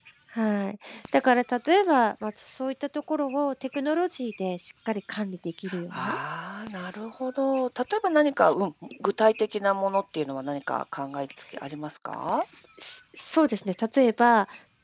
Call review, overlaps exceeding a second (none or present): none